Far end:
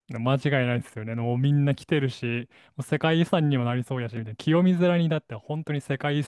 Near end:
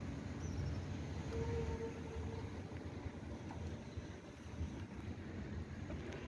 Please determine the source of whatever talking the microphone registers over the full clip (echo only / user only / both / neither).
neither